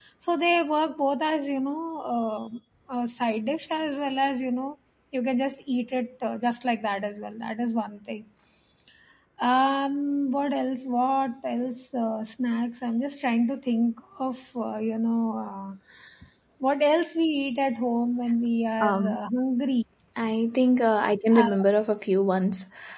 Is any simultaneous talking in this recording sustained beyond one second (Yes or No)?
No